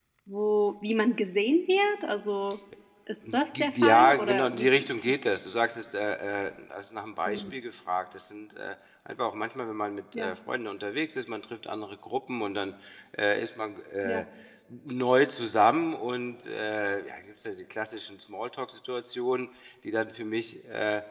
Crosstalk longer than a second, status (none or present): present